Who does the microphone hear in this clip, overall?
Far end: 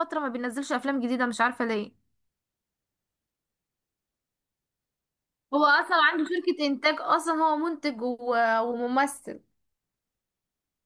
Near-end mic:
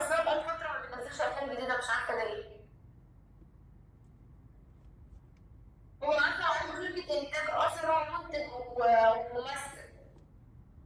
echo only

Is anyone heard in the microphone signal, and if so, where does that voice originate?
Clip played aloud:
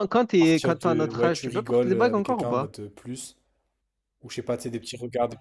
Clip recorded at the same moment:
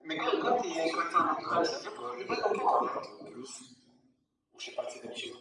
both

